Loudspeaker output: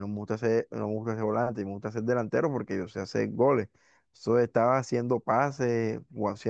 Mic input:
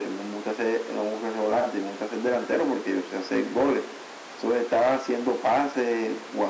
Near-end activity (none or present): none